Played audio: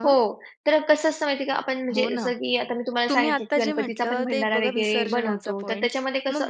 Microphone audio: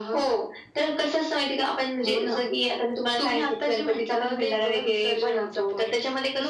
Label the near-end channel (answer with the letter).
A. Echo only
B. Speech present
A